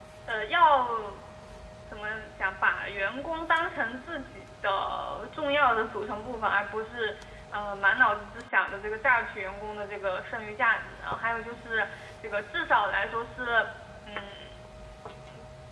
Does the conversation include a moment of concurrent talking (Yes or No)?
No